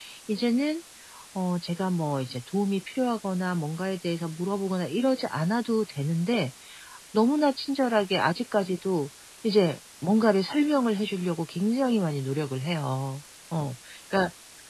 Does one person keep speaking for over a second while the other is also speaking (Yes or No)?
No